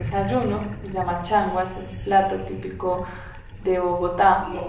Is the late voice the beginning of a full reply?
Yes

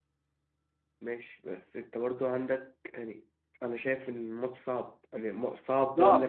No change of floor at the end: No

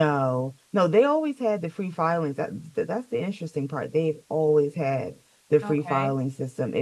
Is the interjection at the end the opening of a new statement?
No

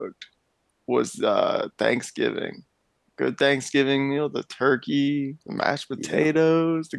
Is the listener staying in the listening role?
Yes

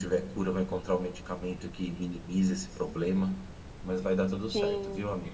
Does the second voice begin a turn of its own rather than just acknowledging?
Yes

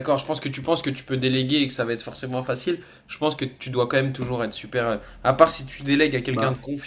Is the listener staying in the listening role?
Yes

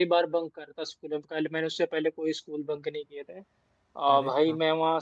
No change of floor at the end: Yes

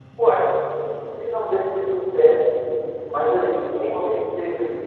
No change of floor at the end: Yes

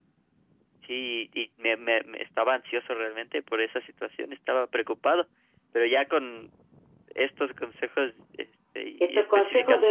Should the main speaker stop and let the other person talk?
Yes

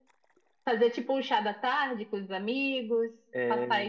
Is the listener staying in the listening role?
Yes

